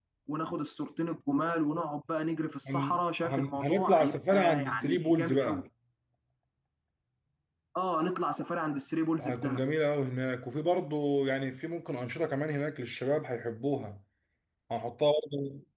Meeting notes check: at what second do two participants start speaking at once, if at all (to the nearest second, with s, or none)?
3 s